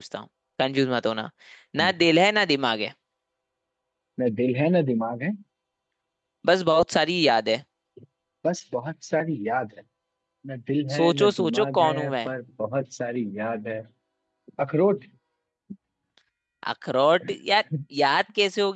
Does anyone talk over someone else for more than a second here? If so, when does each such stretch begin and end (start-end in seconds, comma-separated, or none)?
11.0-12.3